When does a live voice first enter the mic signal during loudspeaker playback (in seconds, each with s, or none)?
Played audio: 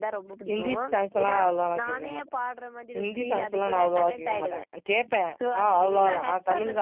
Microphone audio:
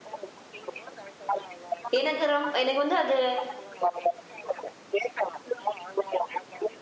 2.0 s